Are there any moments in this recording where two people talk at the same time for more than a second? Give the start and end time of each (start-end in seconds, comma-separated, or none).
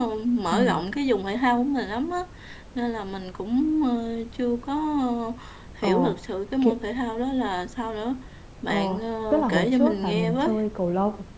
9.3-10.6